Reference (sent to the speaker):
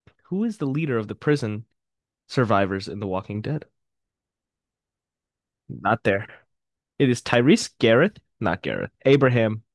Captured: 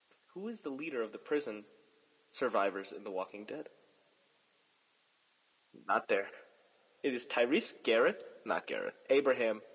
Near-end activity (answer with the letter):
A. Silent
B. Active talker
A